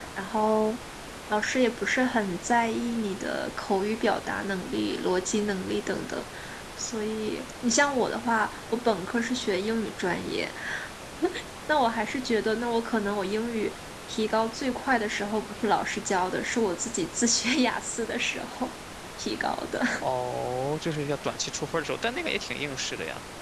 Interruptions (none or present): none